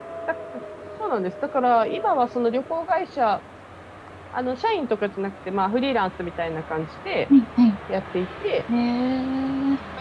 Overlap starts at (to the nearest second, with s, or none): none